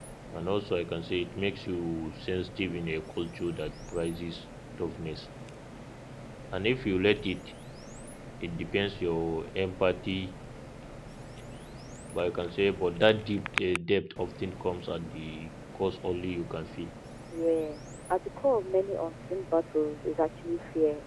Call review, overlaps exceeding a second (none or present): none